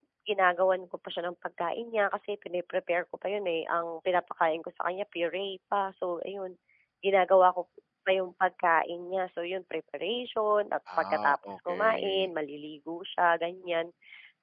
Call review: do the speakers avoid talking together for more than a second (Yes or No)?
No